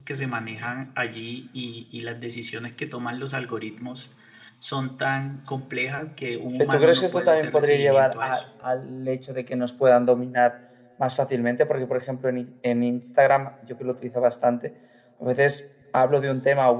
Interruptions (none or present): present